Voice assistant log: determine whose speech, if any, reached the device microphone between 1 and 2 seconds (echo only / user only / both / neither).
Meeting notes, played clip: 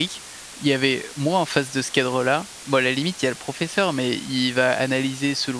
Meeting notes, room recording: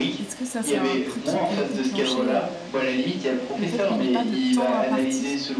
both